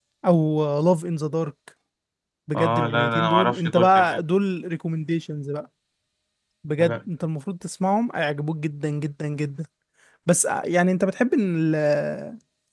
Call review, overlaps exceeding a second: present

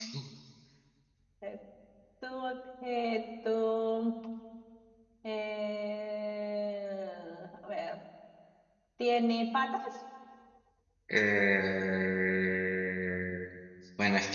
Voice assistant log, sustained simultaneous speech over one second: none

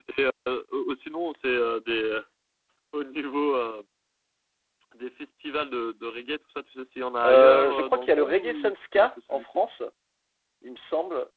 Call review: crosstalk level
present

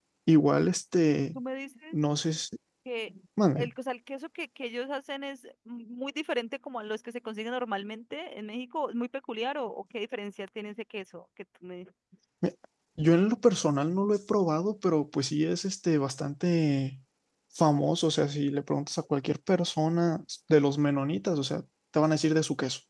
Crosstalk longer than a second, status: none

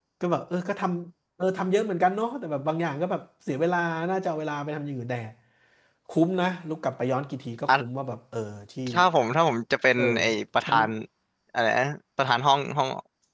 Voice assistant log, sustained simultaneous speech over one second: none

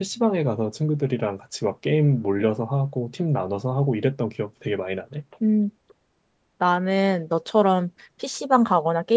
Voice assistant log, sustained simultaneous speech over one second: none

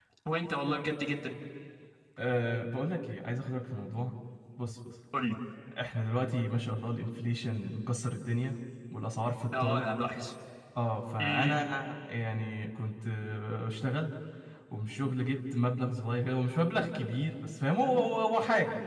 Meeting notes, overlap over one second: none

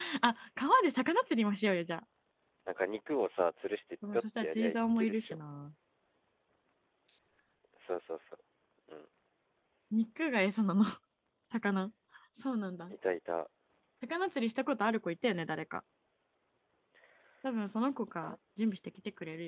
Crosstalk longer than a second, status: present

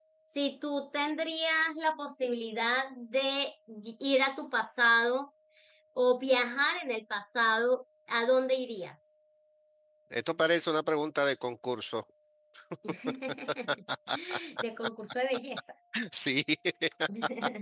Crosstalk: none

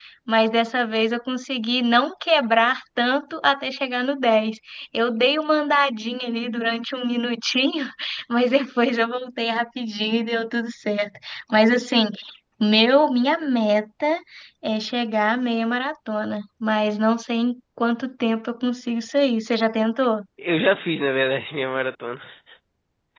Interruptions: none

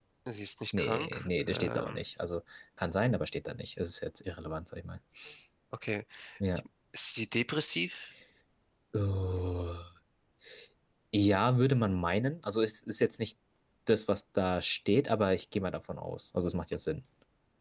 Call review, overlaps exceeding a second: present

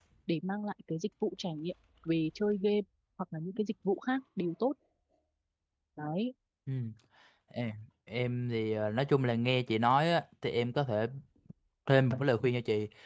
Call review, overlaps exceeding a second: none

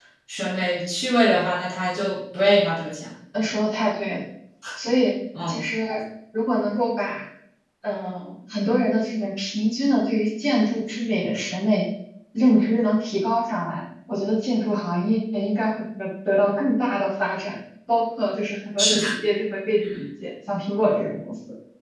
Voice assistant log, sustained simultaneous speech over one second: none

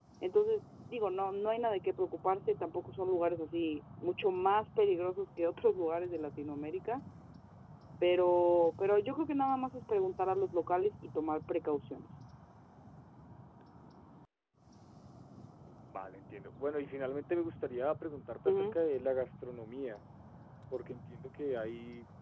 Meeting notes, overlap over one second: none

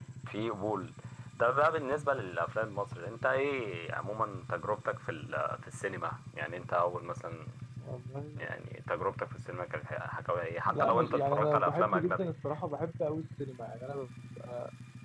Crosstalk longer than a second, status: present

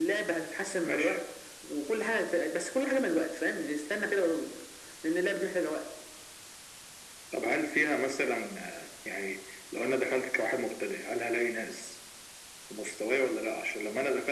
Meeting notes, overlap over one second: none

